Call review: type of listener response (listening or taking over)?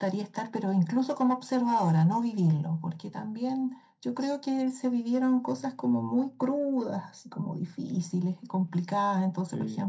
listening